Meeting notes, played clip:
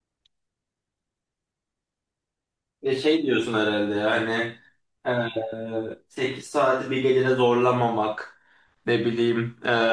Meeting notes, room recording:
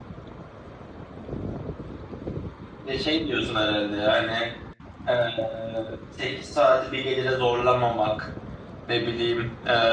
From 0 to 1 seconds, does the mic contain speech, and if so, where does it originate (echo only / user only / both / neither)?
neither